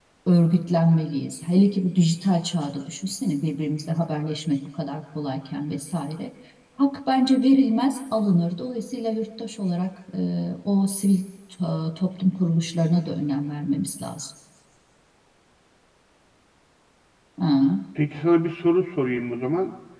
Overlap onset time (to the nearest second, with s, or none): none